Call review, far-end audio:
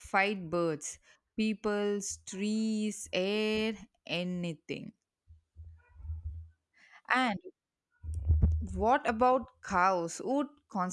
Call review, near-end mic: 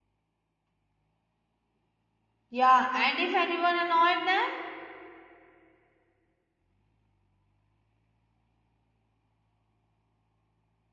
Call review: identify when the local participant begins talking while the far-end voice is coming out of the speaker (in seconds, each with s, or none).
2.5 s